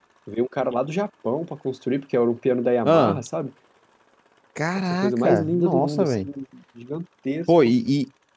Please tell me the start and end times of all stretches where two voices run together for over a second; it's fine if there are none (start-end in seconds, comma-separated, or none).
4.9-6.3